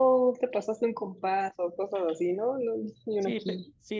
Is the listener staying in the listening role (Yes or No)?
No